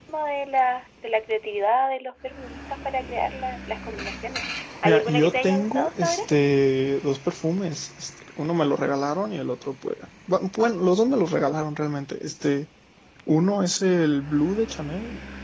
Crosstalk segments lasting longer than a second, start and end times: 4.8-6.2

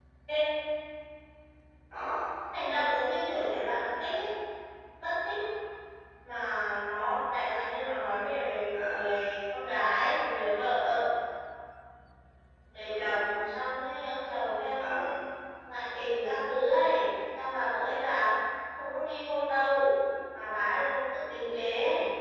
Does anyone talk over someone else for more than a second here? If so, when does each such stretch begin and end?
none

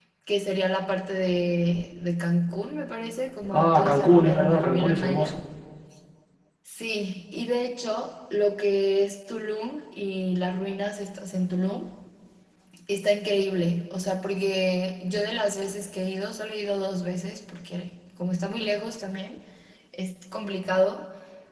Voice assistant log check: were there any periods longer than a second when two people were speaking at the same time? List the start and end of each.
3.5-5.3

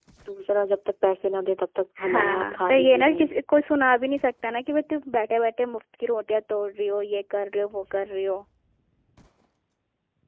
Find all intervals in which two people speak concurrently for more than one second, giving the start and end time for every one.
2.0-3.3

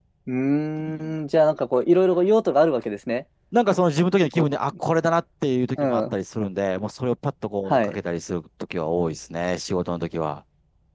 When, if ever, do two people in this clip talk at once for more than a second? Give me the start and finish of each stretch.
none

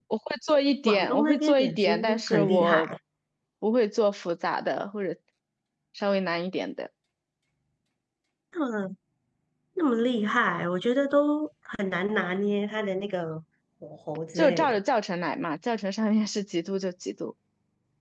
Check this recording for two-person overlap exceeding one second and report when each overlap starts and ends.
0.8-2.8

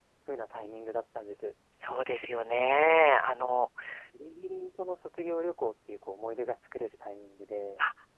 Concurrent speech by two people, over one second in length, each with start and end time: none

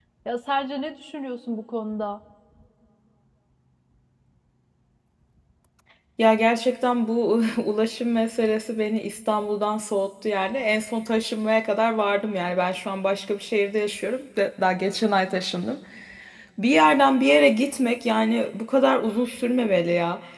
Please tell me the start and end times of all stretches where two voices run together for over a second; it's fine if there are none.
none

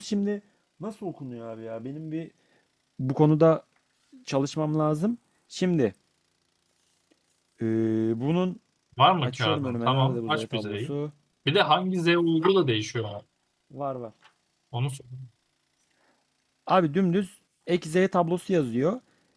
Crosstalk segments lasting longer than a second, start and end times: 9.2-10.9

